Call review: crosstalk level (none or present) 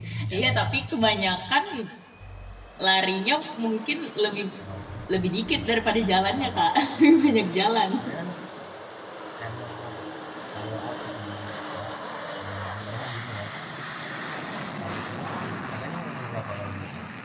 present